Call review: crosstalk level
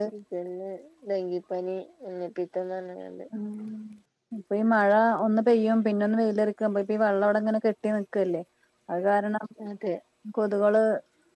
none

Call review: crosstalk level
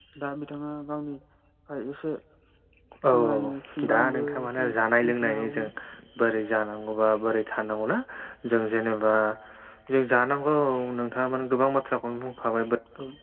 present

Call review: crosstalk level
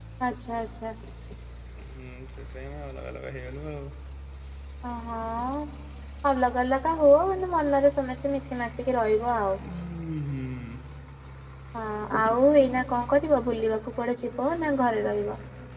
none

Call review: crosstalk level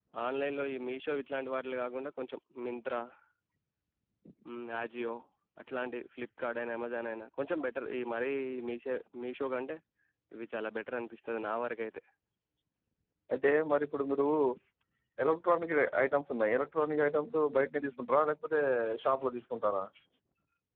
none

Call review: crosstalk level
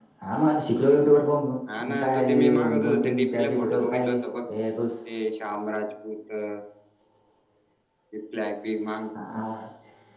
present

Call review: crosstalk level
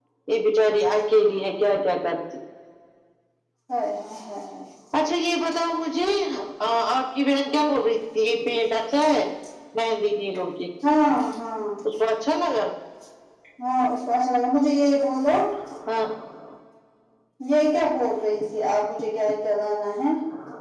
none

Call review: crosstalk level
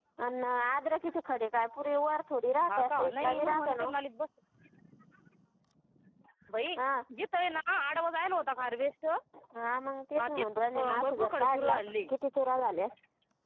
present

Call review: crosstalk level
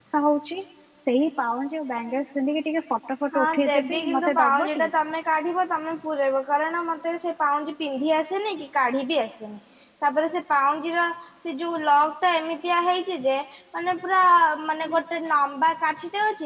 present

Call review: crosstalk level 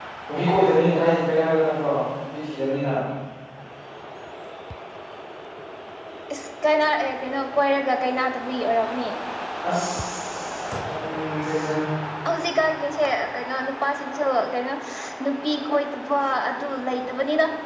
none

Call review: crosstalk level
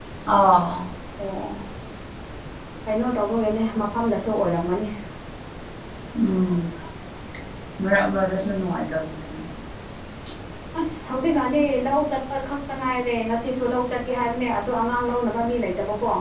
none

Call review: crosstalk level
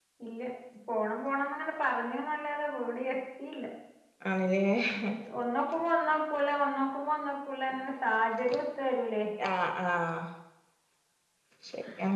none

